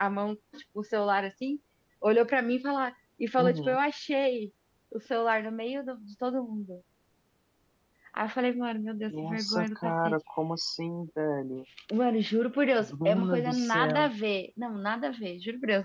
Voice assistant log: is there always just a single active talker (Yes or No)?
No